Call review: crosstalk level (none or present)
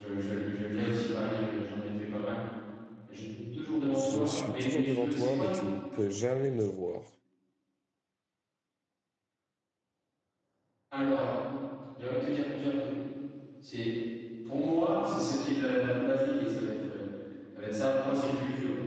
present